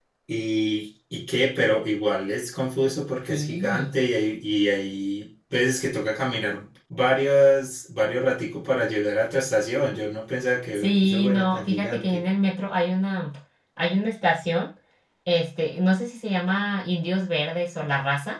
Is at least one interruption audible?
Yes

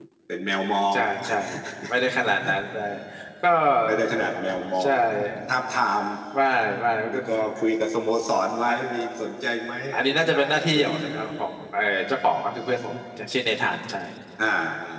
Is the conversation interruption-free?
No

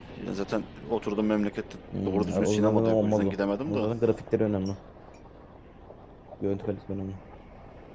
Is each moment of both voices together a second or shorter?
No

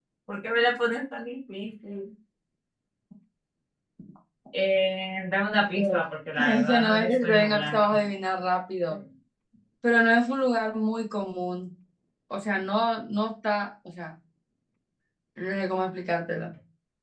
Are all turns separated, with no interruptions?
No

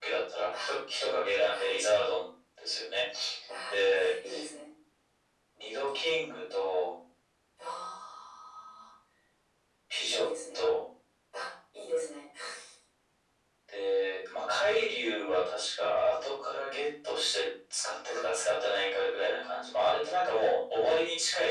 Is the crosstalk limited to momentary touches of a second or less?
No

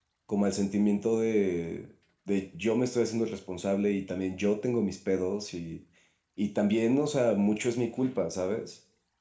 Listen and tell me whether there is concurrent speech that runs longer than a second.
No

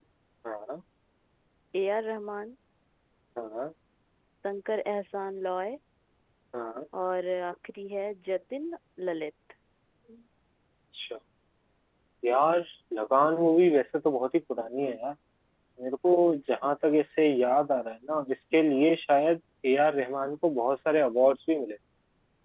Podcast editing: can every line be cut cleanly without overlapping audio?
Yes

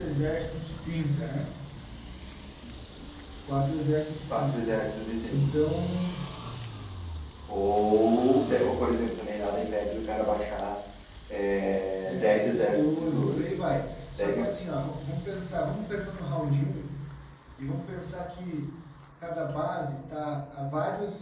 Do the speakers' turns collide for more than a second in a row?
Yes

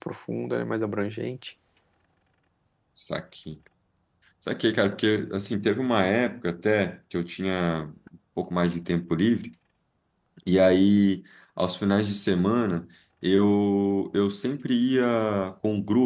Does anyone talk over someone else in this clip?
No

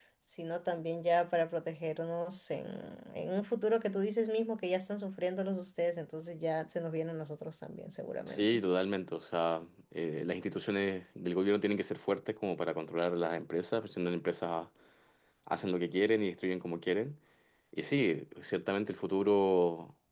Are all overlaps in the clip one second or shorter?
Yes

